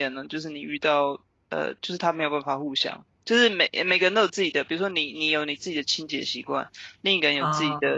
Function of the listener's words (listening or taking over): listening